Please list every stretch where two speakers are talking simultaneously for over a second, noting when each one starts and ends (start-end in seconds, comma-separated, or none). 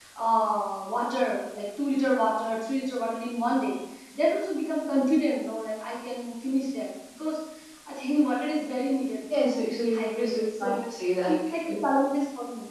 9.4-10.7